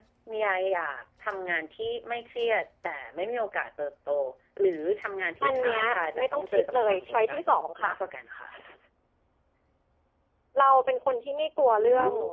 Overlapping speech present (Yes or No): Yes